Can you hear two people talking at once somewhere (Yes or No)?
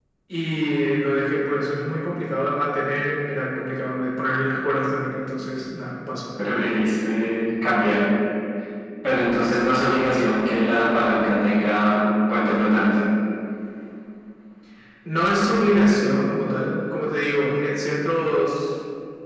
No